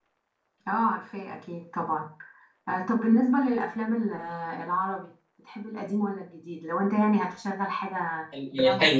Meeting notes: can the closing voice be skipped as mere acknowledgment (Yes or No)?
No